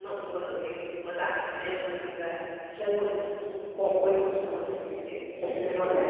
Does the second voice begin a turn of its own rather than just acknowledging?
Yes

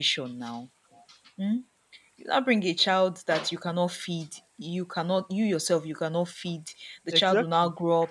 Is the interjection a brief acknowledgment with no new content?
Yes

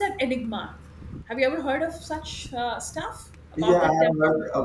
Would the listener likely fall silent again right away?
No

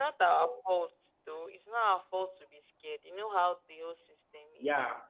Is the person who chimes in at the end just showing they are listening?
No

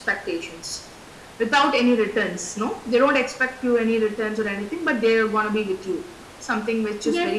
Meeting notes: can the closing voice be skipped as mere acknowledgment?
No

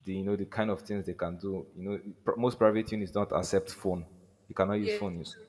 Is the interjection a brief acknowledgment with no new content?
Yes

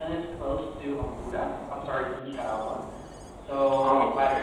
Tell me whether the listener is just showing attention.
Yes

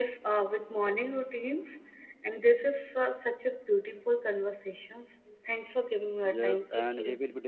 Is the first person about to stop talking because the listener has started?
Yes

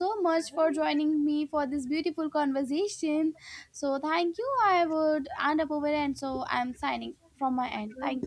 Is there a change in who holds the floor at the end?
Yes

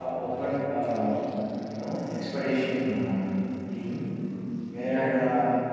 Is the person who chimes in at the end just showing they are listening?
Yes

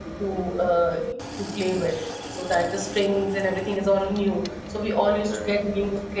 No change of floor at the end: Yes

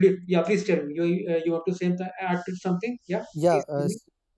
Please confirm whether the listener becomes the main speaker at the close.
Yes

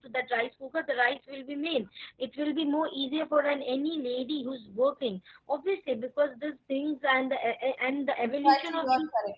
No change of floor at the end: No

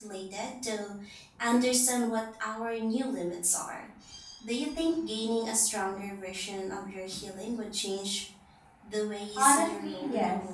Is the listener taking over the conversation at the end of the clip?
Yes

